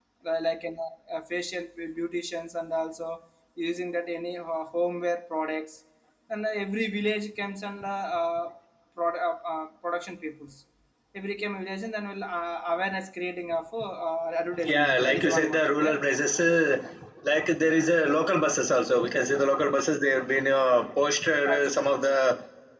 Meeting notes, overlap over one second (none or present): present